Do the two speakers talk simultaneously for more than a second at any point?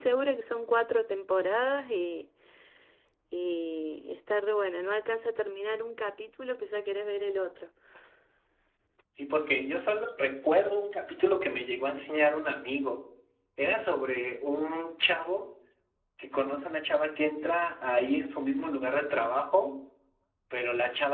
No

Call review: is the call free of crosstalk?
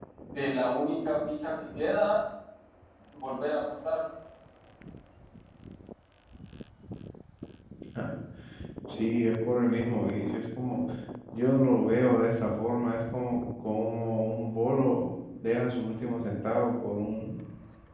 Yes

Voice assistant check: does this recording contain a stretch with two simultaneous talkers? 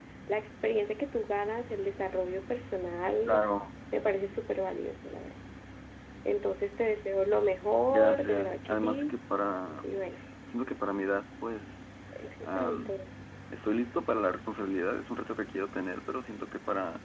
Yes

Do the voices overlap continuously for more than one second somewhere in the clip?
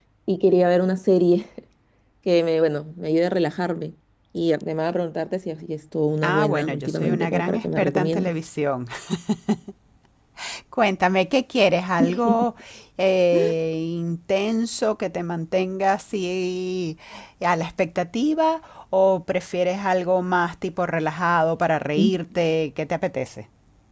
Yes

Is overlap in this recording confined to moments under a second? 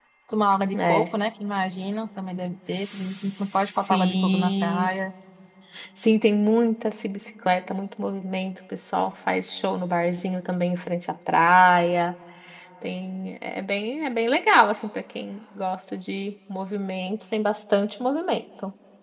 No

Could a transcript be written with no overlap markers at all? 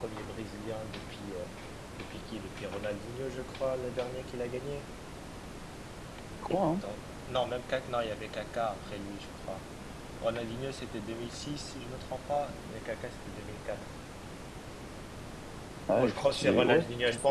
No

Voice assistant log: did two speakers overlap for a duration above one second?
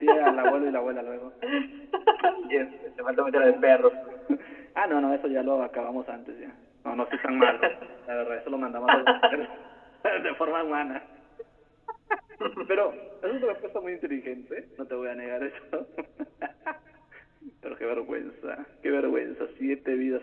No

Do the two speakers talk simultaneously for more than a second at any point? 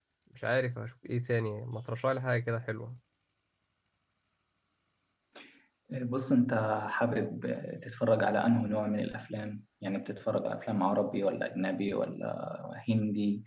No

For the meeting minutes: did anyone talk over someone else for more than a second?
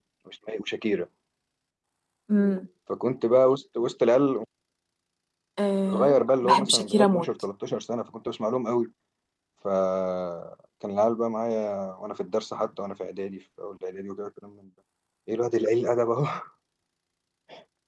Yes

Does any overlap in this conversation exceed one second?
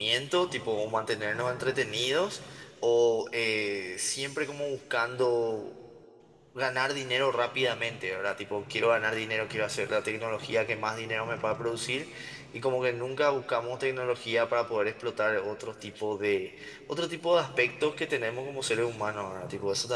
No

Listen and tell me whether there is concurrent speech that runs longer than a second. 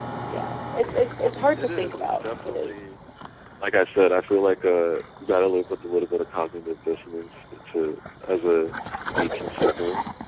Yes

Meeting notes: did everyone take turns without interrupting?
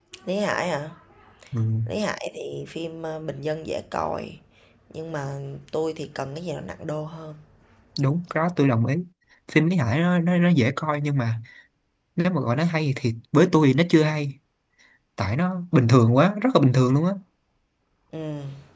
Yes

